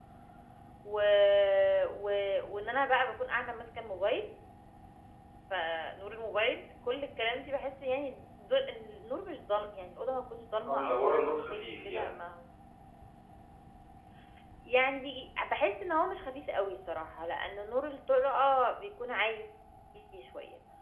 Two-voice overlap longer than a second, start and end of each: 10.7-12.2

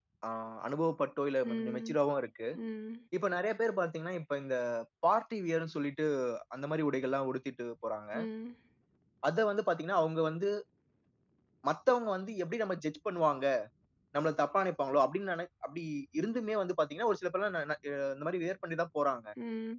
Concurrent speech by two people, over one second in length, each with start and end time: none

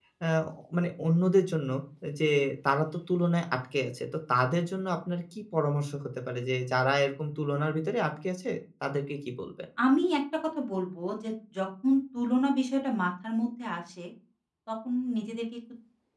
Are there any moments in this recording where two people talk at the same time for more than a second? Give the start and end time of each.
none

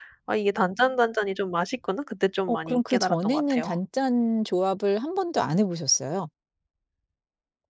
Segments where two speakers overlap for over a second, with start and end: 2.5-3.7

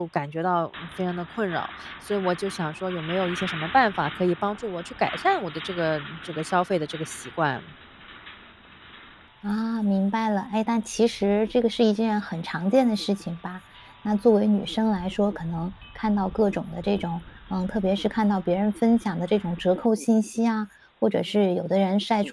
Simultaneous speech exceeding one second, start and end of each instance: none

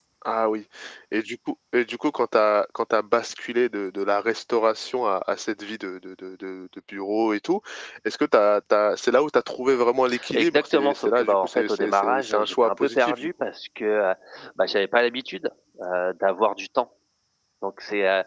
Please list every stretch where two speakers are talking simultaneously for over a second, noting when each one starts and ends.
10.3-13.3

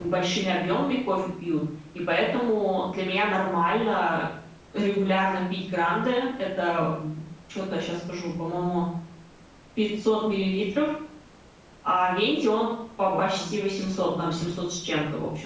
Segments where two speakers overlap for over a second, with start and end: none

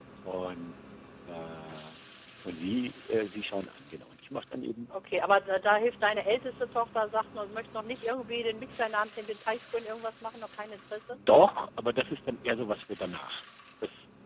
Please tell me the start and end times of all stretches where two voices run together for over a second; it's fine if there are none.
none

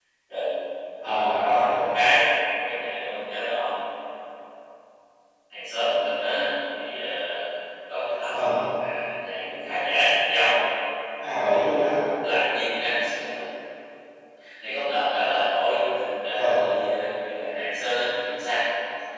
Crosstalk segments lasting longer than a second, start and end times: none

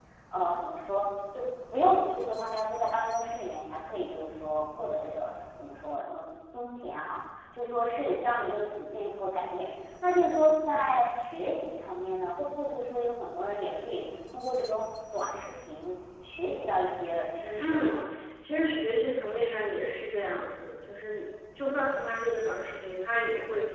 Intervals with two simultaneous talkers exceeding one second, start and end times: none

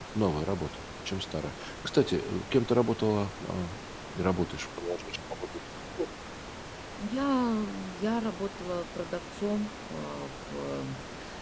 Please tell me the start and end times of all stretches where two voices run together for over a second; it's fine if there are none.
none

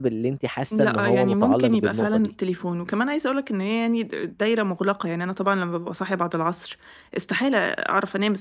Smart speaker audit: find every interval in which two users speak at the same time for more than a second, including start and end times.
0.7-2.3

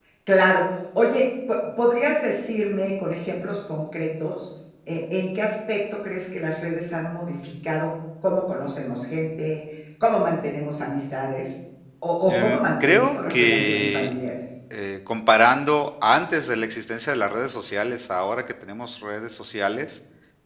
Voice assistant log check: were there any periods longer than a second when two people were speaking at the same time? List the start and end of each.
12.3-14.1

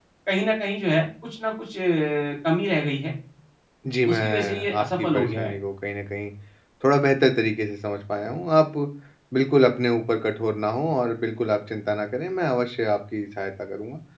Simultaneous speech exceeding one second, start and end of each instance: 4.0-5.5

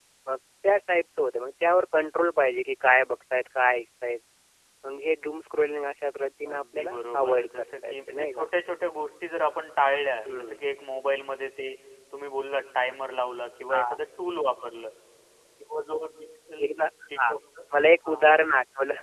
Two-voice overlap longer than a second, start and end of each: 6.4-8.5

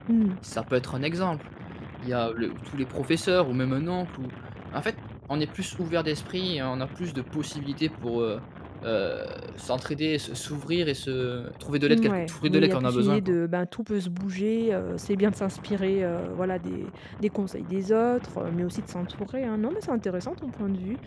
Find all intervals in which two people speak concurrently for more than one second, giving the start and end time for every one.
11.9-13.4

